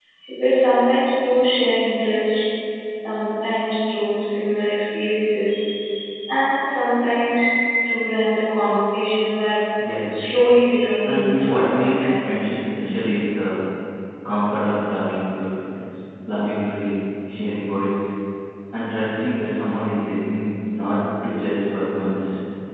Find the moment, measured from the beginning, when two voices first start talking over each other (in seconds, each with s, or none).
11.0 s